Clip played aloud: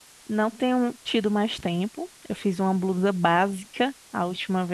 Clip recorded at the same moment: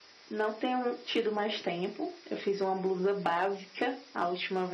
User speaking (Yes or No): No